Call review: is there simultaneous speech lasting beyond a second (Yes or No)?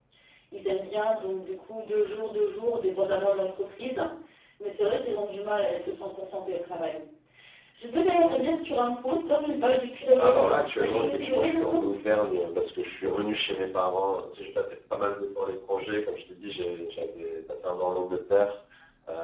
Yes